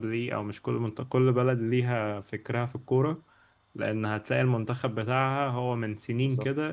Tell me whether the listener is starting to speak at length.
No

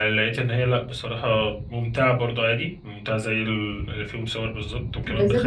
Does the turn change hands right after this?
Yes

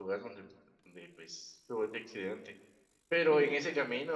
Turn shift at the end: No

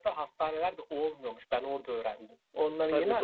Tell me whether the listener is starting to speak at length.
Yes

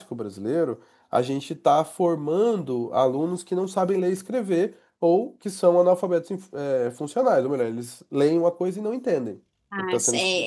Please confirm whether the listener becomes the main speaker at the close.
Yes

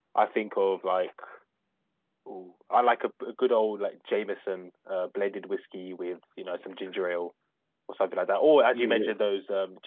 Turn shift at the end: No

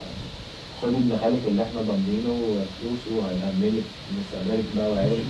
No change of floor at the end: No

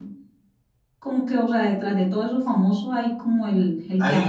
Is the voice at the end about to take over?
Yes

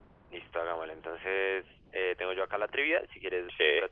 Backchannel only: Yes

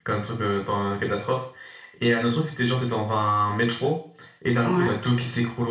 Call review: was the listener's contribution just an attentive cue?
Yes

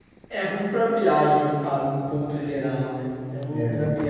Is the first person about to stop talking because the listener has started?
No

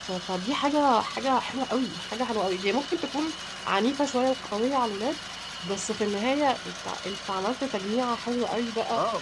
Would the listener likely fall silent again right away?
No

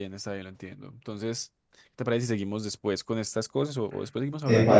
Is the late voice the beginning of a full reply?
Yes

